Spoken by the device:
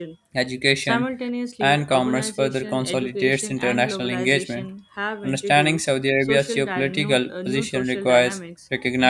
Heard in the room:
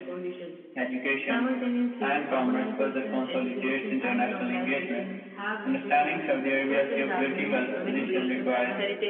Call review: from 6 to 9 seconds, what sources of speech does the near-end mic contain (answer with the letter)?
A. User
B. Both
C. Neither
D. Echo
B